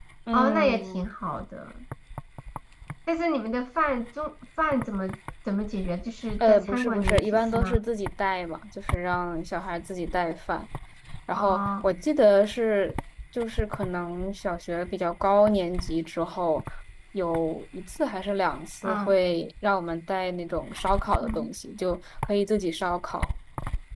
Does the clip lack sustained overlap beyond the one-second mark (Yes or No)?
No